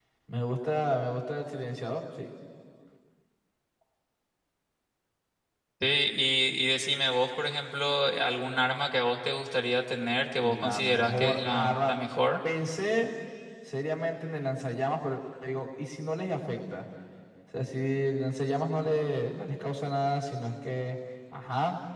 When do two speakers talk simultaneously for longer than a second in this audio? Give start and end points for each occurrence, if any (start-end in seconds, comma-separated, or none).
10.4-11.9